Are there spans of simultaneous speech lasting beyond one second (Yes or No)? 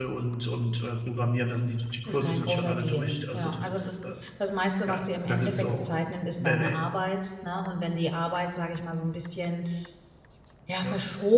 Yes